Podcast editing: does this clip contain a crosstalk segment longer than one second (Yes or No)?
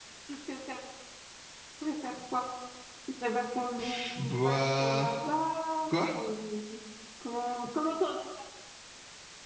Yes